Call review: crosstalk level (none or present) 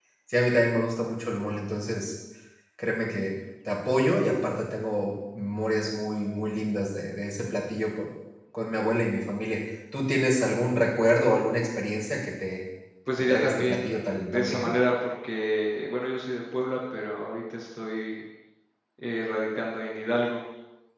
present